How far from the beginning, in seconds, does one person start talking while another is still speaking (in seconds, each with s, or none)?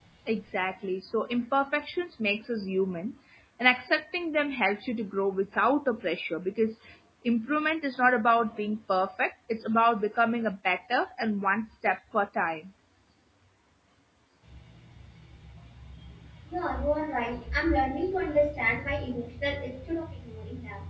none